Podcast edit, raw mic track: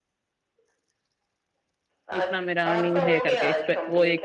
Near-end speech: present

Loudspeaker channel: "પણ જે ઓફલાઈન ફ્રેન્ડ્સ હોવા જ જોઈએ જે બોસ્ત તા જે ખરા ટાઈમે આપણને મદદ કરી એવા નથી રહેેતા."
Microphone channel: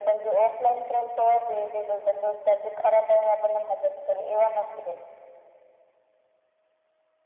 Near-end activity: none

